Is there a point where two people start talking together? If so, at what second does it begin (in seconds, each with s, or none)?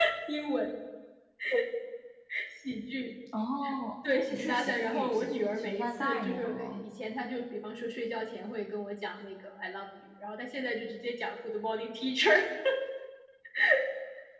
4.1 s